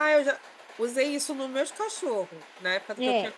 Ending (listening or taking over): taking over